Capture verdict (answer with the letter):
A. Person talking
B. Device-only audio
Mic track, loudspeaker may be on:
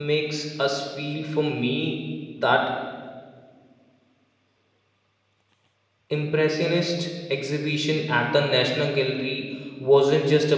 A